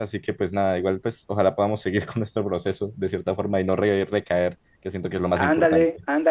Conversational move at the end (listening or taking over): taking over